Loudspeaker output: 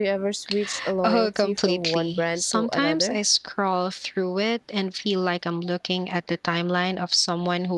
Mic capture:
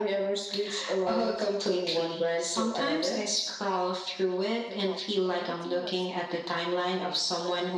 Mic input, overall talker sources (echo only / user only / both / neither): both